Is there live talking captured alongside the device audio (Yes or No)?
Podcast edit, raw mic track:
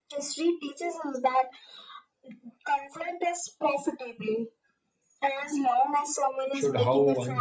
Yes